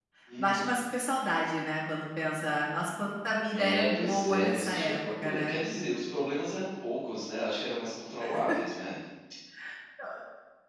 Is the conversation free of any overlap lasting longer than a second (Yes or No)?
No